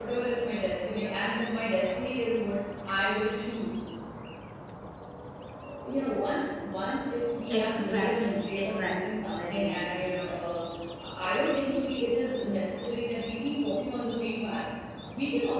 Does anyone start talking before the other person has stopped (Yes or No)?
Yes